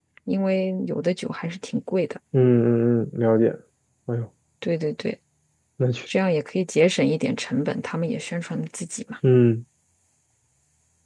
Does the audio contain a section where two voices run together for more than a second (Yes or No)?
No